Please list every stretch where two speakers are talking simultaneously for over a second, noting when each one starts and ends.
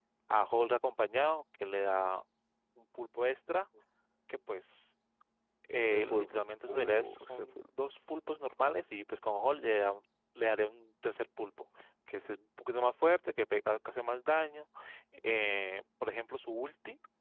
5.7-7.6

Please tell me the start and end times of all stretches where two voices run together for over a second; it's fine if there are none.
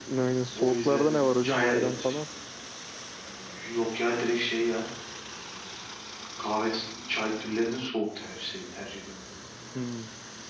0.6-1.9

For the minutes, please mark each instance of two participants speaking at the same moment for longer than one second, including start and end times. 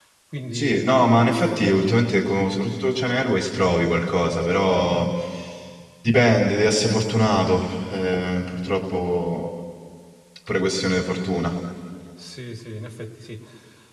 0.5-2.0

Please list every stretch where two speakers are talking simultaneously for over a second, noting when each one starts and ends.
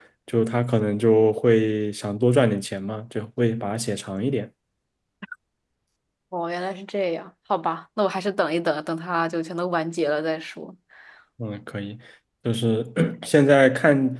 none

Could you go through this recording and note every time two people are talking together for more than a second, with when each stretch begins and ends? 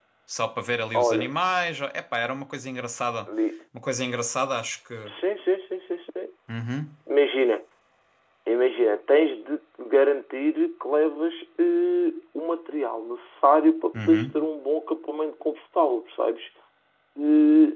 none

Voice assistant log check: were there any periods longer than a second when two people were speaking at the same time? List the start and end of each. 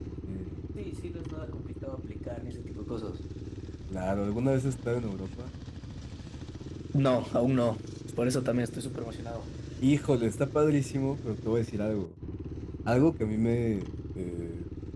none

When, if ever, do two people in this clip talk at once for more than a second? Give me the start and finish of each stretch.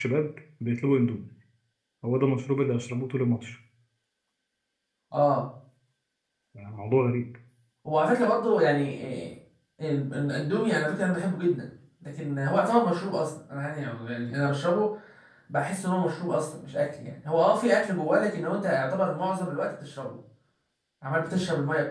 none

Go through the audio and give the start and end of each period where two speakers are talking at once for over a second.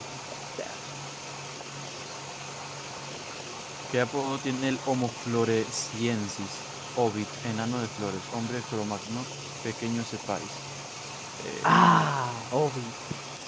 none

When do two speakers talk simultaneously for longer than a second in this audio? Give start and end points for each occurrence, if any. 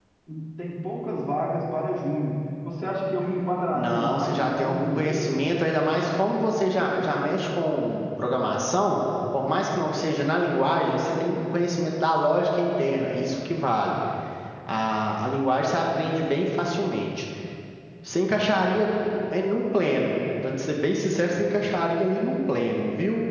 3.7-5.3

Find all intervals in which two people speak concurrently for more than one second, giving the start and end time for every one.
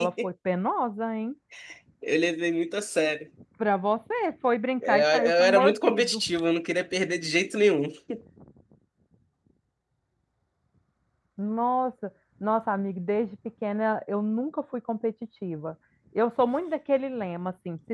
4.9-6.2

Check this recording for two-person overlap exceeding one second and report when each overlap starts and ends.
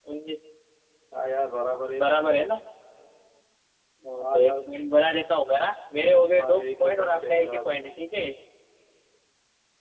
6.3-7.8

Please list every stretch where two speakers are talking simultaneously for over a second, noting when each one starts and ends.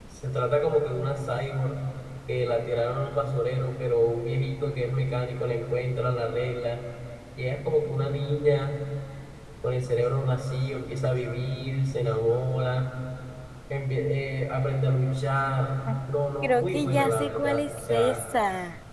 16.4-18.2

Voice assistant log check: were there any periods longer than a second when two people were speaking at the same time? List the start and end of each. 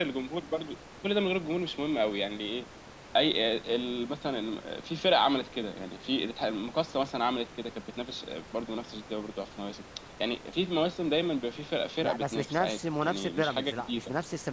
12.0-14.0

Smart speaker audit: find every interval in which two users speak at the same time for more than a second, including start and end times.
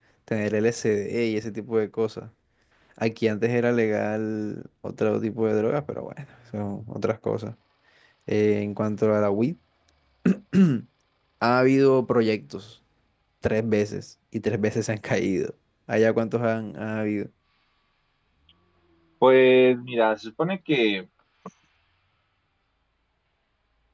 none

